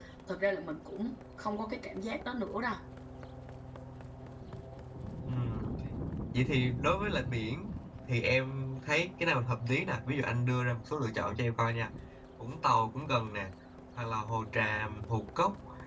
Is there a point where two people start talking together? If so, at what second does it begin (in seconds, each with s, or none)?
none